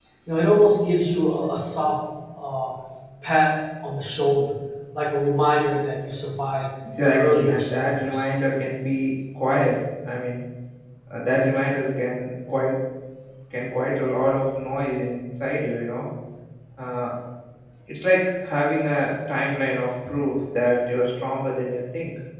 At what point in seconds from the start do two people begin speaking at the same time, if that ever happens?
6.8 s

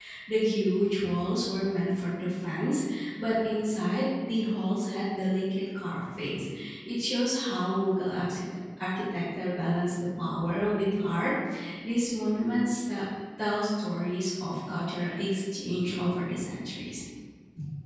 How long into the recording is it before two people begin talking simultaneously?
none

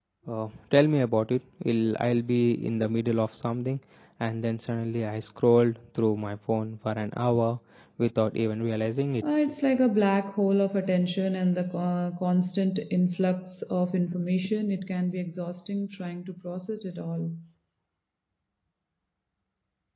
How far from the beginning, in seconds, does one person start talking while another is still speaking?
none

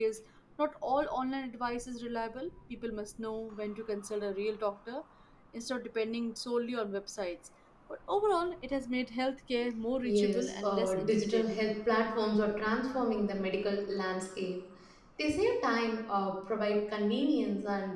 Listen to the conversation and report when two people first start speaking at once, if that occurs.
10.0 s

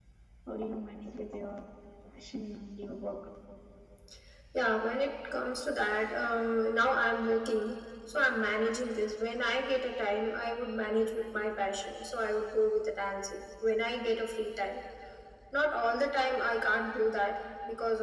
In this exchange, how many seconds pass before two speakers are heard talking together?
none

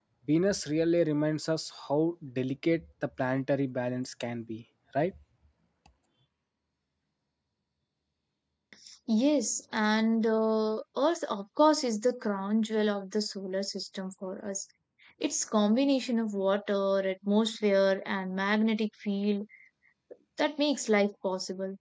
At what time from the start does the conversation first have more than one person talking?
none

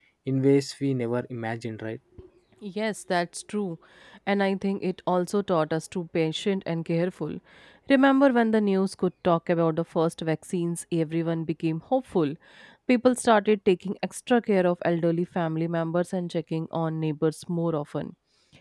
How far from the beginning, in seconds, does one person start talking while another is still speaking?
none

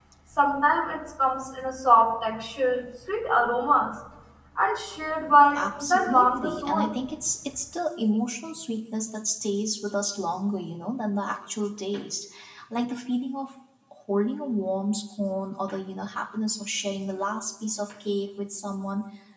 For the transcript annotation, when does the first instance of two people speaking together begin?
5.5 s

